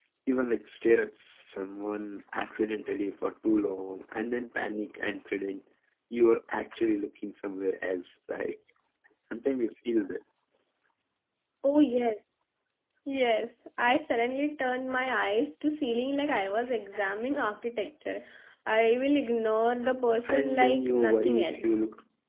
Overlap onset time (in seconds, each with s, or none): 20.2 s